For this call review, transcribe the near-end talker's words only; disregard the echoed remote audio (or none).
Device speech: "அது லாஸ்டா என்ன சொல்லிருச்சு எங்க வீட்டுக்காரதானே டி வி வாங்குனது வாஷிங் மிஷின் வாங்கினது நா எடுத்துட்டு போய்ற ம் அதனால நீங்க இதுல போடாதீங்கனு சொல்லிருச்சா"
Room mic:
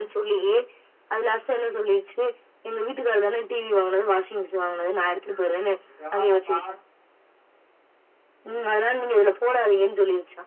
none